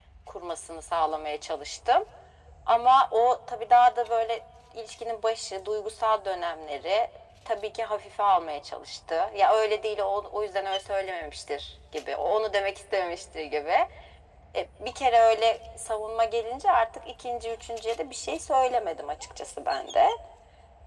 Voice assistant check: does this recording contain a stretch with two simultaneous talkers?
No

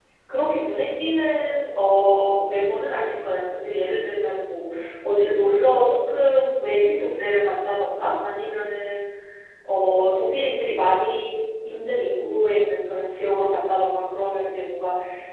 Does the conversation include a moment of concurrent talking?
No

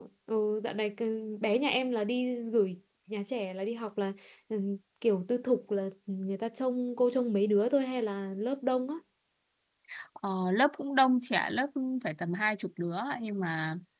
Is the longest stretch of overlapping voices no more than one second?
Yes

